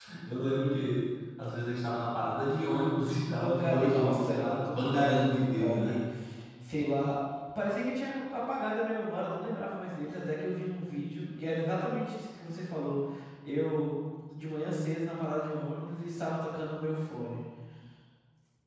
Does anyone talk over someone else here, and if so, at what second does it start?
3.3 s

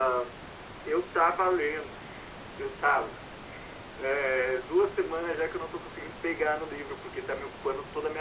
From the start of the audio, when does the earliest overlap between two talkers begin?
none

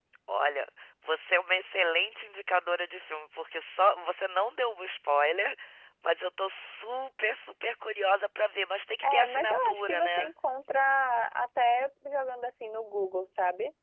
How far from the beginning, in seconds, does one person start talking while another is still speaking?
9.0 s

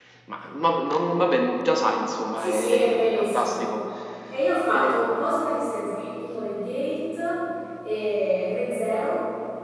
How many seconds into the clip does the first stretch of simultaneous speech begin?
2.4 s

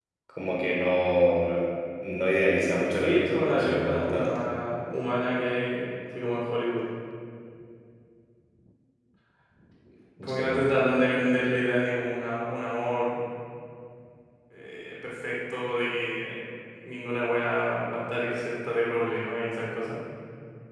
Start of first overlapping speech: 3.0 s

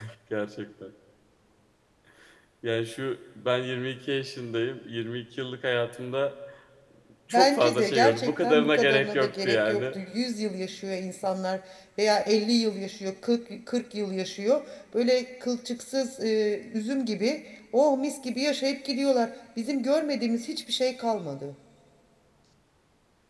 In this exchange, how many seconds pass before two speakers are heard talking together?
7.3 s

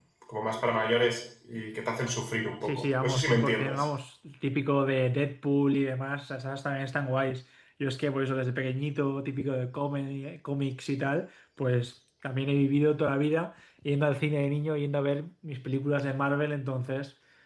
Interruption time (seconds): 2.6 s

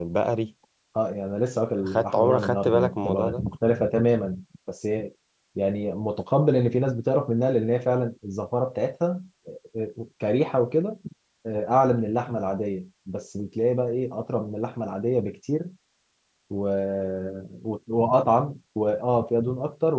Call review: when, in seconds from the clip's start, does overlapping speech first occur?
1.8 s

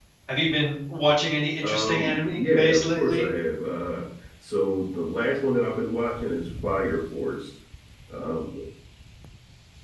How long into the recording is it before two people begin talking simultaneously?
1.6 s

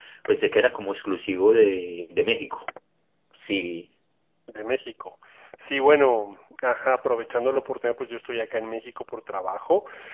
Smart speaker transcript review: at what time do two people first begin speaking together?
none

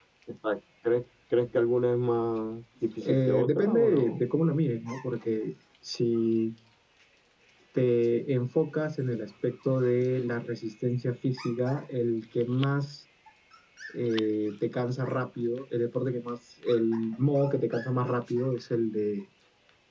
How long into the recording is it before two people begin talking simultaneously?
3.0 s

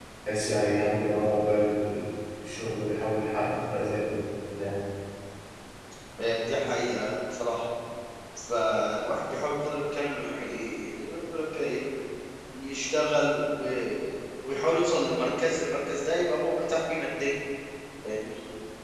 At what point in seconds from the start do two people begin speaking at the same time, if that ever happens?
none

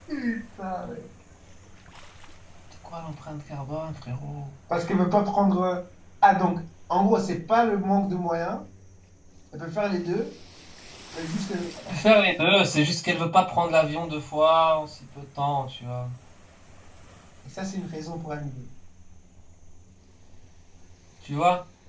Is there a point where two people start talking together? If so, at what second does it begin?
none

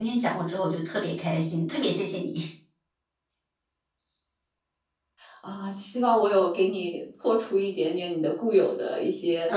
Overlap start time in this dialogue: none

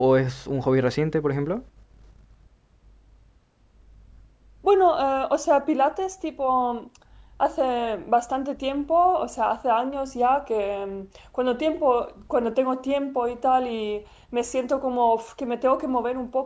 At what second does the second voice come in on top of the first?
none

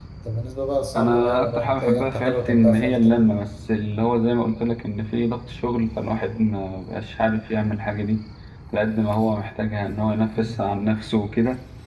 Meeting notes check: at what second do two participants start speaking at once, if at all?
0.9 s

